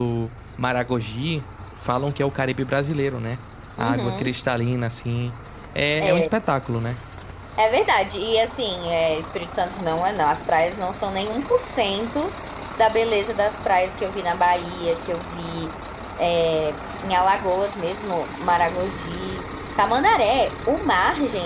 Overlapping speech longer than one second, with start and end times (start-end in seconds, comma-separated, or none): none